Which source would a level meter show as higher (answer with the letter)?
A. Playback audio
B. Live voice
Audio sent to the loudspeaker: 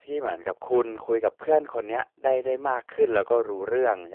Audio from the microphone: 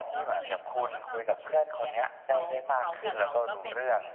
A